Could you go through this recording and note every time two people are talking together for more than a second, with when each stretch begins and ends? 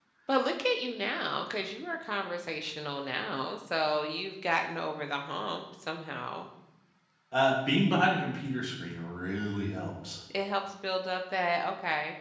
none

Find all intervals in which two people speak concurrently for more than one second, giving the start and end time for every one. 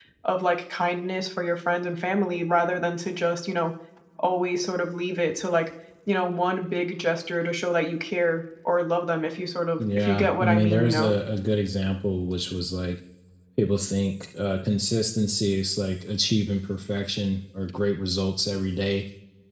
9.8-11.1

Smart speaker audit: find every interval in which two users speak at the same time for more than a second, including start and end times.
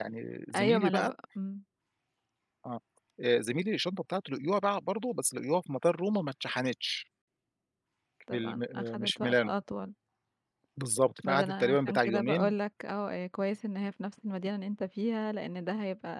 8.3-9.5, 11.2-12.5

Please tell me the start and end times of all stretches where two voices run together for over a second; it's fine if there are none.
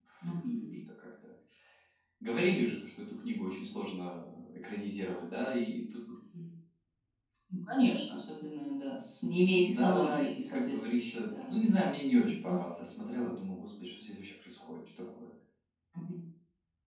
9.5-11.5

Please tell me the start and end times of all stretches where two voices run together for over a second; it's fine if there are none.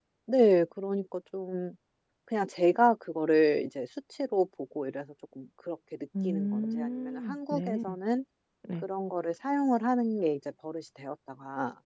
6.2-7.8

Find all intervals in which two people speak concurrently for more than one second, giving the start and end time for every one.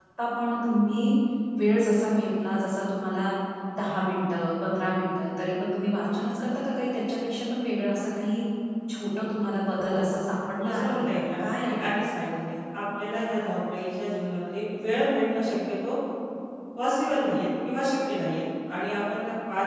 10.6-11.9

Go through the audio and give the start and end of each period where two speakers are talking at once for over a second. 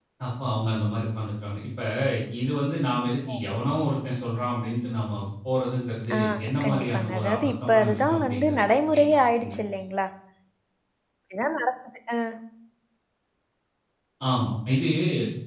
6.6-9.6

